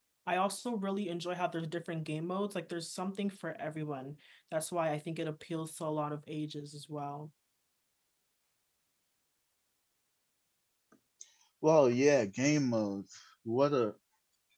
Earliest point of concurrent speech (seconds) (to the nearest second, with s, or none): none